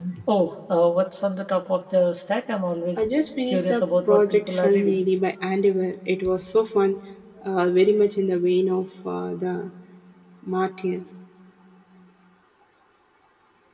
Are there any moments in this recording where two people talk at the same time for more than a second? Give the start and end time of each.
3.5-5.0

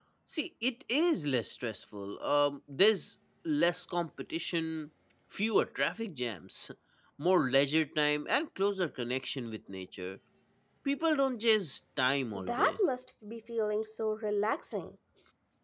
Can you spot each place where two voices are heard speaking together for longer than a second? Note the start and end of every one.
none

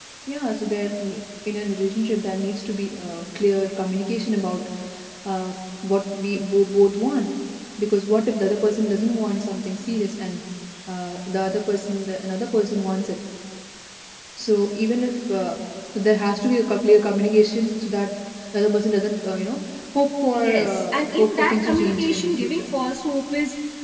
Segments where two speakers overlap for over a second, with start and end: 20.3-22.7

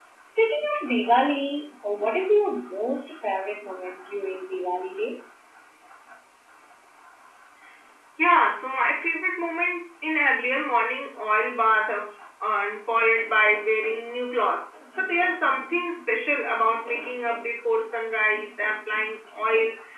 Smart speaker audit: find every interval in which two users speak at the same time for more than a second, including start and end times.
none

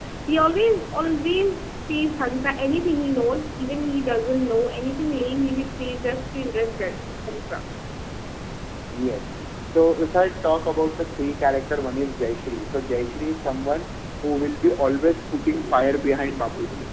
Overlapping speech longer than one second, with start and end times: none

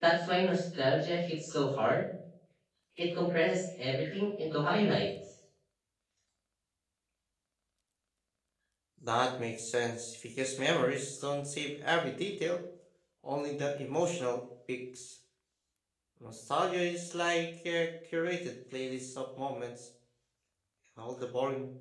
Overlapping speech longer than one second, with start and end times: none

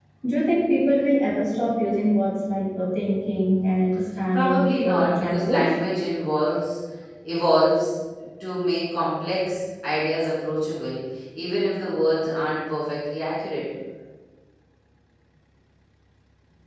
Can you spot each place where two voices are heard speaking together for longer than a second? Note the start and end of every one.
4.3-5.6

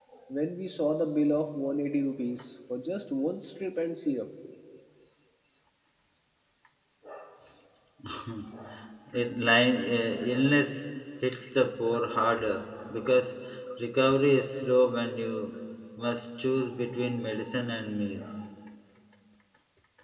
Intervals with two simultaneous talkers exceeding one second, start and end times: none

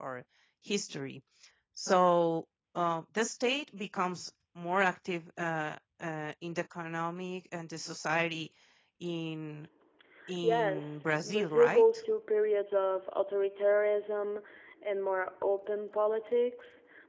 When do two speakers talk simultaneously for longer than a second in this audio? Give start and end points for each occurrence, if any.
10.4-11.8

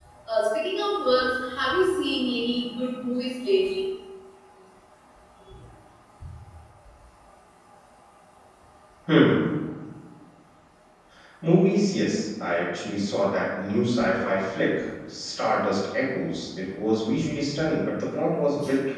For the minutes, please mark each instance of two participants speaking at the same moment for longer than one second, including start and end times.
none

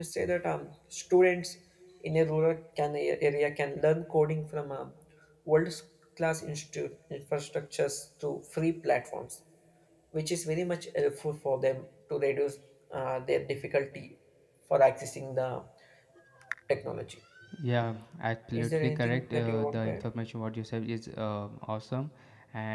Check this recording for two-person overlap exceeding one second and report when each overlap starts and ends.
18.5-20.0

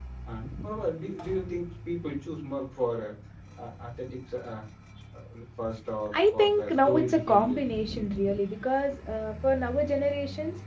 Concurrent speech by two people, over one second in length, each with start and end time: 6.1-7.6

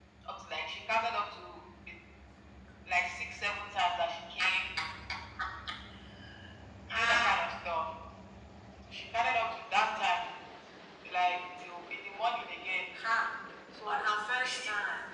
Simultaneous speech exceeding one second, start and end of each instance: none

